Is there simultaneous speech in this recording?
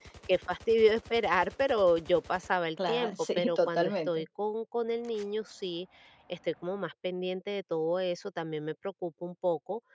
Yes, from 2.8 s

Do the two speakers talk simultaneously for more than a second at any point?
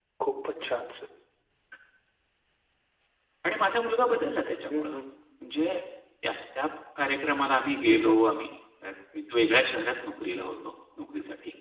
No

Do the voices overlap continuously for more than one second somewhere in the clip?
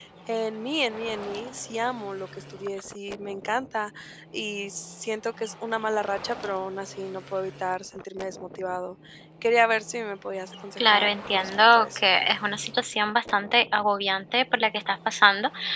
Yes, from 10.8 s

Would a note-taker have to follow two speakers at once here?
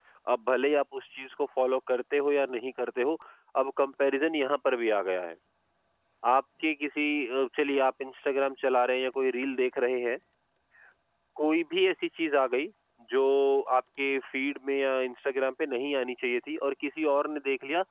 No

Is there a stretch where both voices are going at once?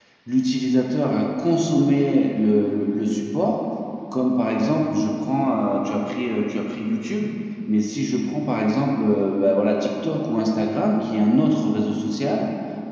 No

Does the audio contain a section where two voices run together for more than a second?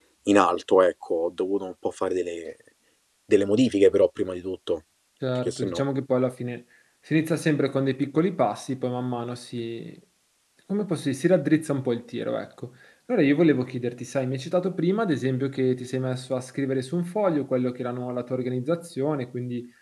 No

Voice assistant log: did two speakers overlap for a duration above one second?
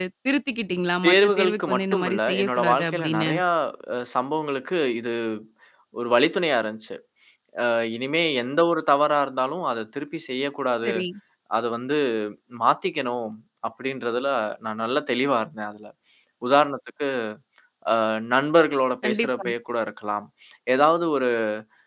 Yes, from 1.0 s

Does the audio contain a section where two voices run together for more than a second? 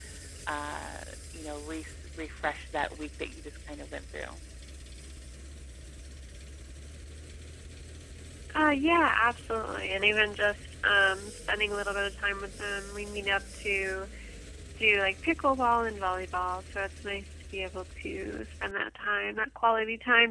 No

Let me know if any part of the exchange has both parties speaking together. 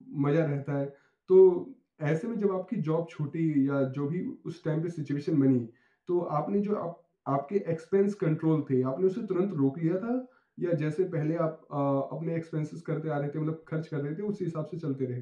No

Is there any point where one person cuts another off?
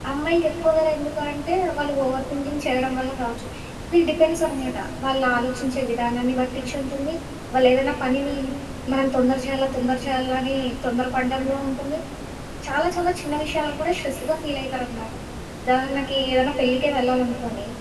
No

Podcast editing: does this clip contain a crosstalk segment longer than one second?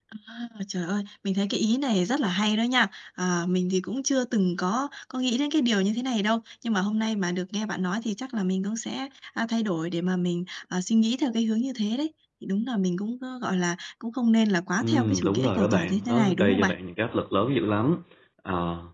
Yes, from 14.8 s

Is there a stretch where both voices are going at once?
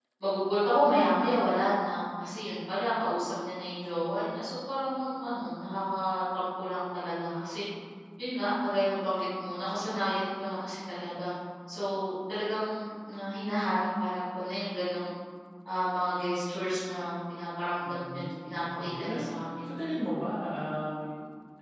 Yes, from 17.8 s

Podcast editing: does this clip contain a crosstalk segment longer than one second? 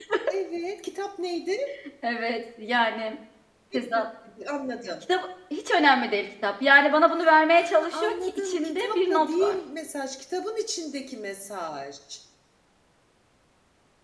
Yes, from 7.6 s

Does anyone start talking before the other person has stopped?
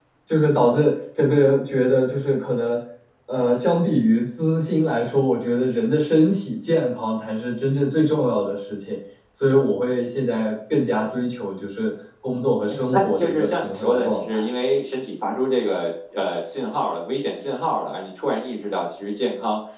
Yes, from 12.9 s

